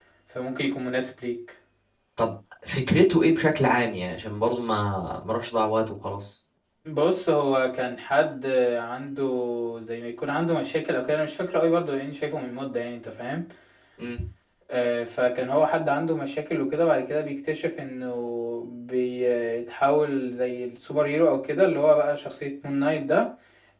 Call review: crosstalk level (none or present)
none